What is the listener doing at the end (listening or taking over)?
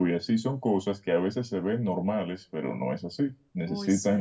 listening